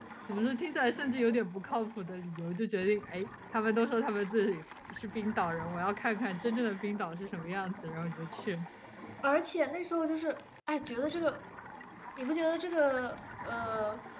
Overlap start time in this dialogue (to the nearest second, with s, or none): none